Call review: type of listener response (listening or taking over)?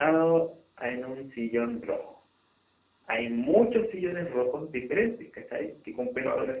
listening